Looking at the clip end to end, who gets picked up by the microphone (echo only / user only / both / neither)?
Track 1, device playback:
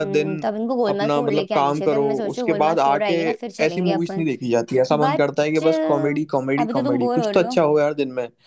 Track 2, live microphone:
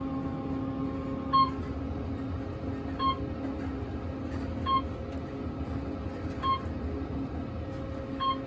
neither